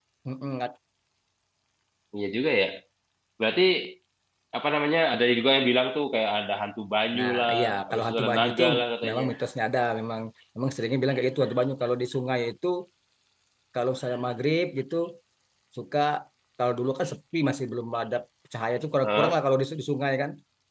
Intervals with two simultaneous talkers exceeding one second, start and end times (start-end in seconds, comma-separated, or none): 7.2-8.6